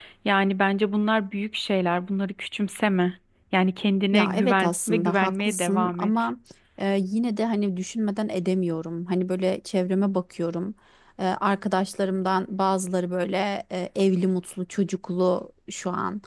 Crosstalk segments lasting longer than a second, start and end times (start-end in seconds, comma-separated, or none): 4.1-6.1